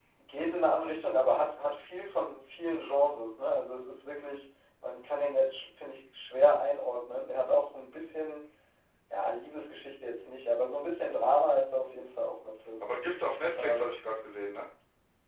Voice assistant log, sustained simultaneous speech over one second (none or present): none